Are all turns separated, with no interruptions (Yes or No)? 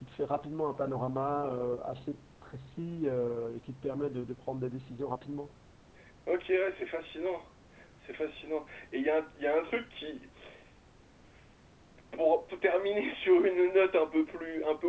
Yes